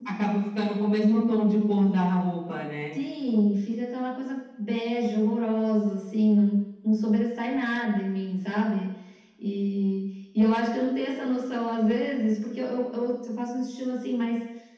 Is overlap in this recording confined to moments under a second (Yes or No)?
Yes